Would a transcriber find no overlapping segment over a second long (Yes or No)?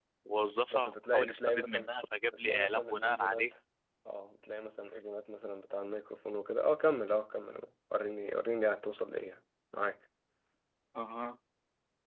No